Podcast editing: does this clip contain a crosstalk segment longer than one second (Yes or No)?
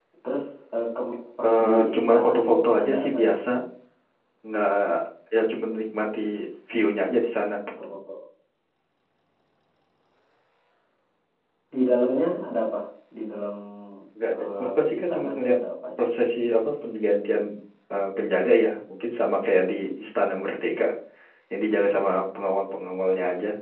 Yes